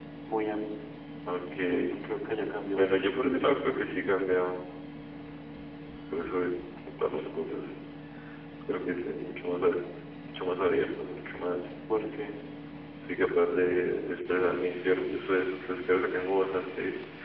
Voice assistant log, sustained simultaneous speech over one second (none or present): none